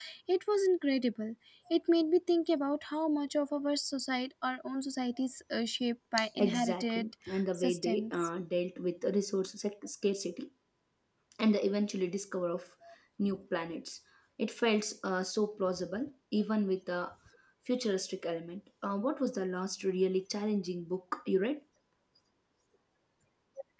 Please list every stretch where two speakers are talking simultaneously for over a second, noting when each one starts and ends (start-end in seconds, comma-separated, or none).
6.4-8.2